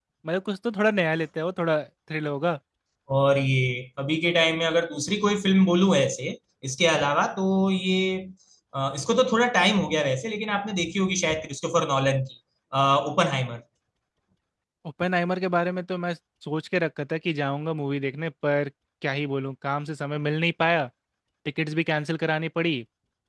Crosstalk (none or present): none